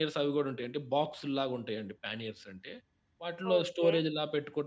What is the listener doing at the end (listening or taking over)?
listening